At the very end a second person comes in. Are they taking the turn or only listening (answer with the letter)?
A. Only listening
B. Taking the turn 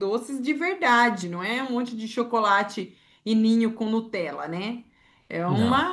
A